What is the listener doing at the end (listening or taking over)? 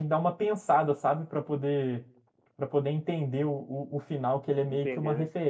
listening